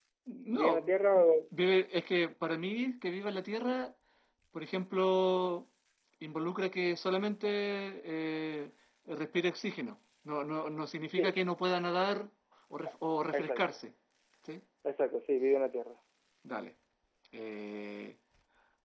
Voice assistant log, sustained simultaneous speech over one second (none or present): none